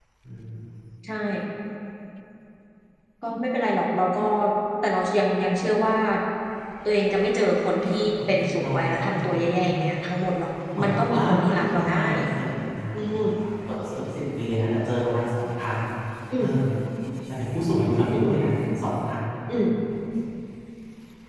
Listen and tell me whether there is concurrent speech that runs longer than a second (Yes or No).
Yes